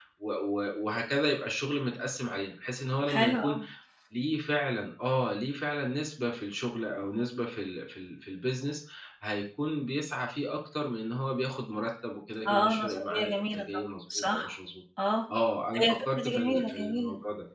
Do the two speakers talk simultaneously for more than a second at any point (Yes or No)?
Yes